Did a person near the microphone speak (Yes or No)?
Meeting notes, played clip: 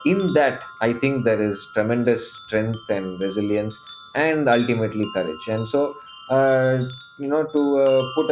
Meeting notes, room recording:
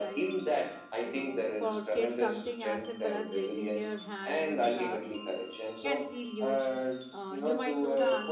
Yes